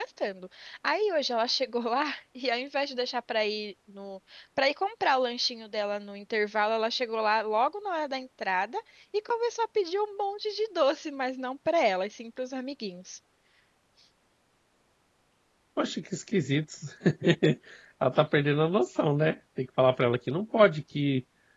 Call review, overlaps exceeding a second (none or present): none